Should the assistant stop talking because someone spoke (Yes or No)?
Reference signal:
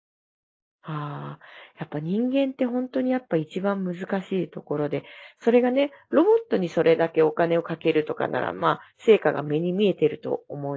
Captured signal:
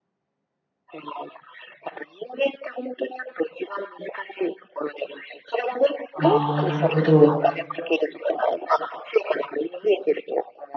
Yes